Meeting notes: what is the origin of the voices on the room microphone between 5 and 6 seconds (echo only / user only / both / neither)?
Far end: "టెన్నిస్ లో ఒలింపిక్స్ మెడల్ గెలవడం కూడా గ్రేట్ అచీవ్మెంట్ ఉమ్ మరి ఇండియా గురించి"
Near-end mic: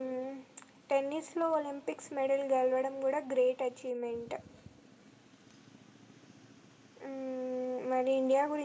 neither